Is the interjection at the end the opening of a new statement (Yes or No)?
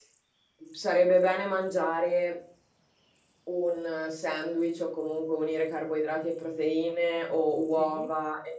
No